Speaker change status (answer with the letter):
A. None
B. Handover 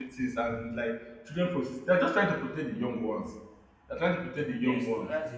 B